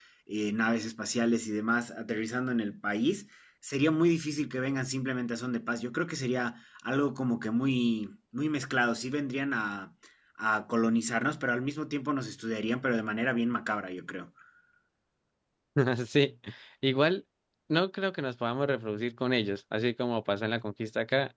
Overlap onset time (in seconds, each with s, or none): none